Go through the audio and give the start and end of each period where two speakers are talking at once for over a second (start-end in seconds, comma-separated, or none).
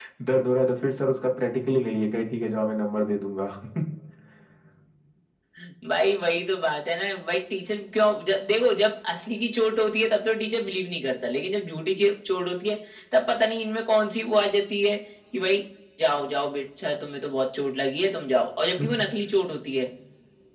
none